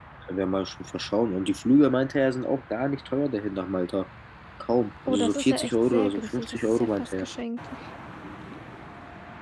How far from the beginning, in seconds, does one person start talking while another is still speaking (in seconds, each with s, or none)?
5.1 s